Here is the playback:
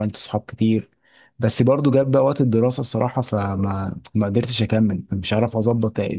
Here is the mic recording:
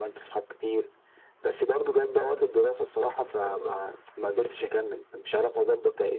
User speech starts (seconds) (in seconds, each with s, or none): none